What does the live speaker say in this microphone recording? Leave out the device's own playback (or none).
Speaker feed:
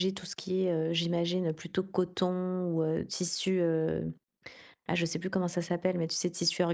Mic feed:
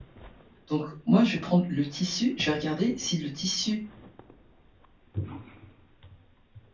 Donc moi, je vais prendre le tissu, je vais regarder si le tissu,